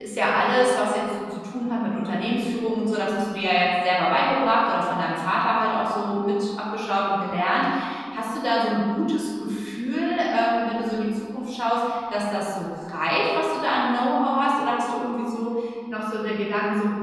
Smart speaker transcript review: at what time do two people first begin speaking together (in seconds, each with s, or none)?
none